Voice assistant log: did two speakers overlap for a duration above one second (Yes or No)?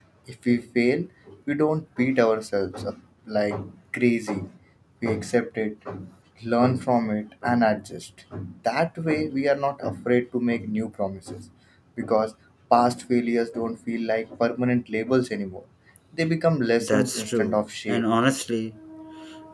Yes